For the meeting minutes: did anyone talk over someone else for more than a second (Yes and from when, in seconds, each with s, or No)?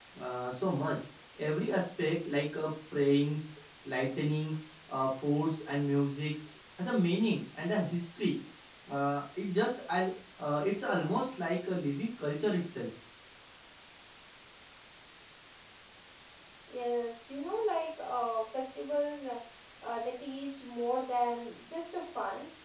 No